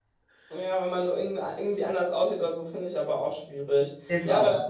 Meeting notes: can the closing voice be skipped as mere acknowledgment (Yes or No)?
Yes